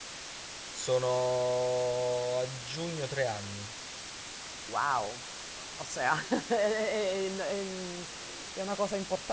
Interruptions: none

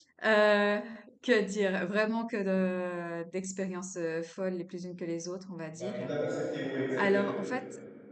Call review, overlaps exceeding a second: none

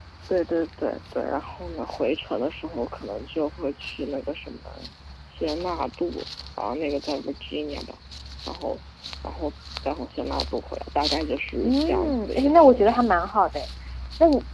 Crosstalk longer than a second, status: present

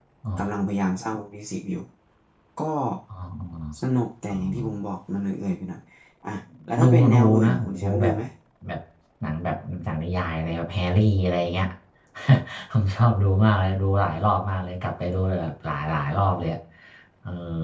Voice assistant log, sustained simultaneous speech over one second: present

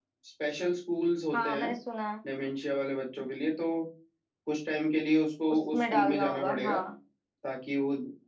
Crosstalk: present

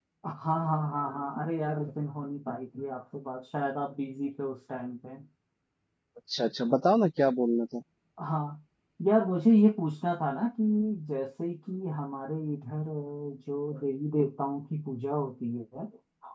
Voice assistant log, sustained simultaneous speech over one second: none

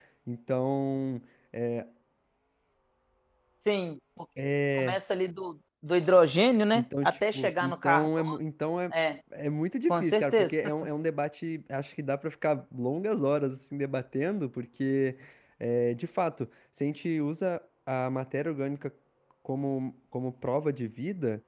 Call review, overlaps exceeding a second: present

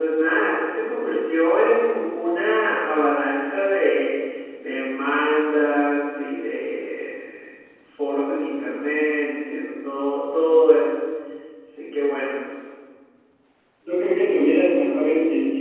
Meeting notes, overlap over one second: none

